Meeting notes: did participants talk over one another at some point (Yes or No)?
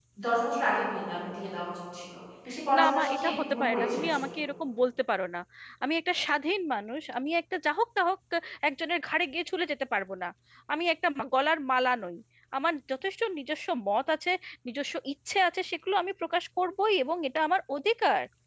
Yes